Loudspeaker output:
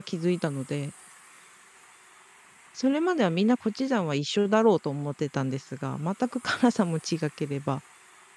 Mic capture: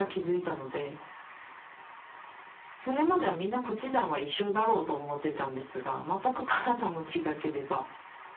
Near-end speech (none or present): none